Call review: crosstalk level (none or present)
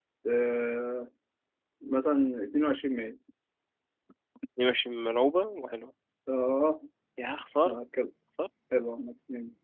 none